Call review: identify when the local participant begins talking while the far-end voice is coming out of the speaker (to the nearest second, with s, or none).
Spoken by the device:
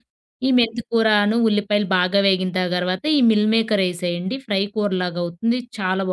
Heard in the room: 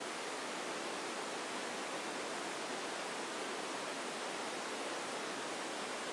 none